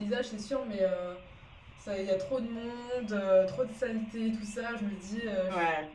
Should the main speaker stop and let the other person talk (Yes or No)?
No